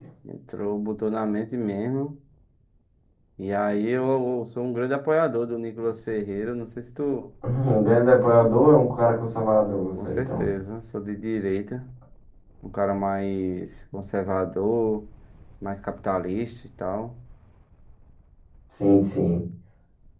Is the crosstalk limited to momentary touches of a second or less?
Yes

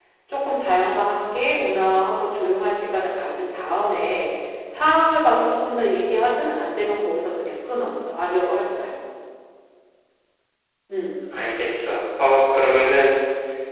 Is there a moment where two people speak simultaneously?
No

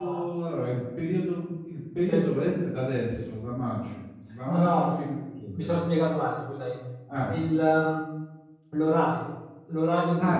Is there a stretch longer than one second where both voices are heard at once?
No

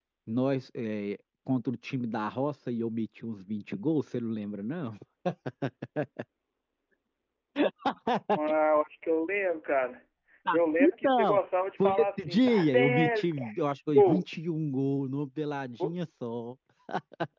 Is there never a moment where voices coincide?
No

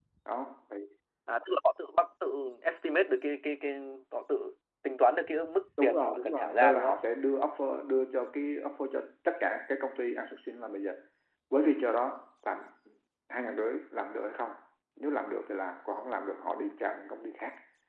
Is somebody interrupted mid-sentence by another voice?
Yes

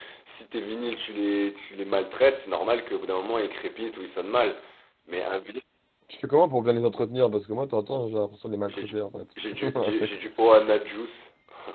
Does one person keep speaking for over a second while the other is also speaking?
No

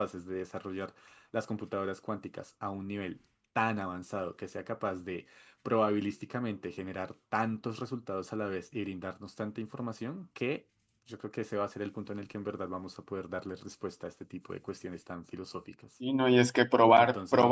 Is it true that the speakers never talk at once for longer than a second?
Yes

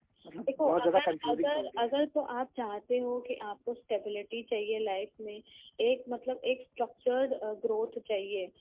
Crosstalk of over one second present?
Yes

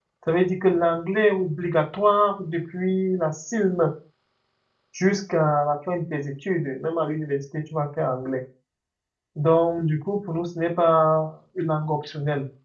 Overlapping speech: No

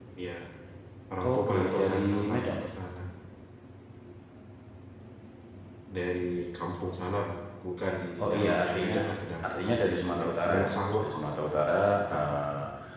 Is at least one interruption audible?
Yes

